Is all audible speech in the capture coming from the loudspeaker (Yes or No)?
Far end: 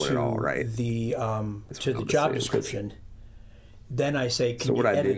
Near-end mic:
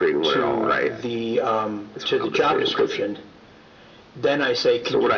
No